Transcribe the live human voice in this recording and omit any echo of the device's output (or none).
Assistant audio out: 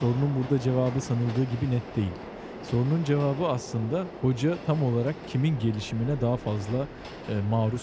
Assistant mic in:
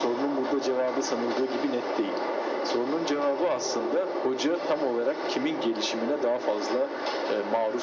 none